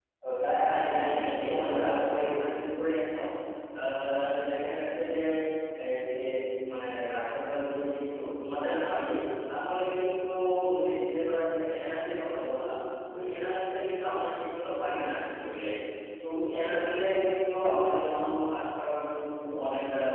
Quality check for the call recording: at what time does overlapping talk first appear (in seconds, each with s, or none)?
0.7 s